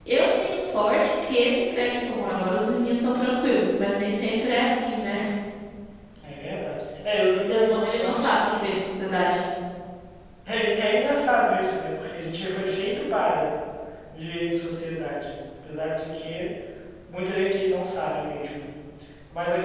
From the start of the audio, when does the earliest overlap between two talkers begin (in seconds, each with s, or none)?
7.5 s